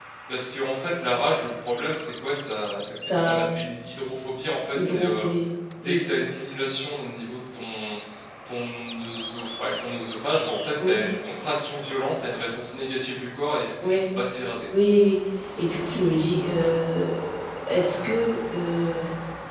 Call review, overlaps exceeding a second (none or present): none